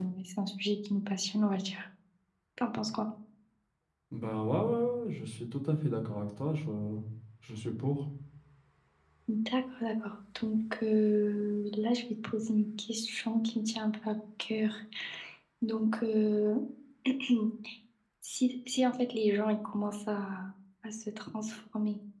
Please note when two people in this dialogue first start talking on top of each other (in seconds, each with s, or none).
none